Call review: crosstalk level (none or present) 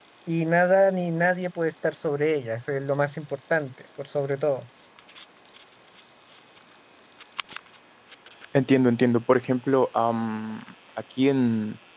none